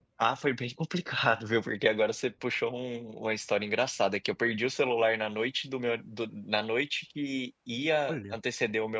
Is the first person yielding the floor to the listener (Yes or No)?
No